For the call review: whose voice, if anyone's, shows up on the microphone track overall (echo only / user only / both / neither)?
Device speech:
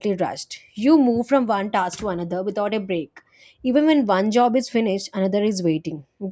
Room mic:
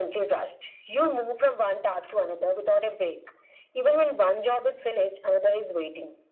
echo only